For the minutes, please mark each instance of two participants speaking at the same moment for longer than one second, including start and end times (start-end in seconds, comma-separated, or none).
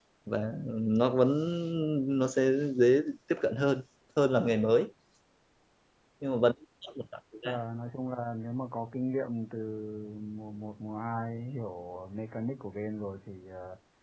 none